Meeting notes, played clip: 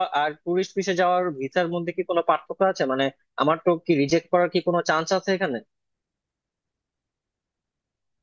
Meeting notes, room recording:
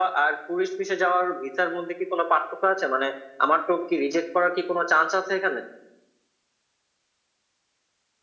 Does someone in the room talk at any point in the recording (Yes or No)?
No